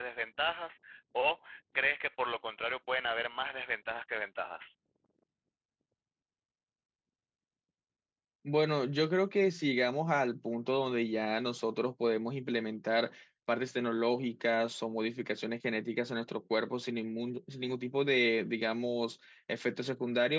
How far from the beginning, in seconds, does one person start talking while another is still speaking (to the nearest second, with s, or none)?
none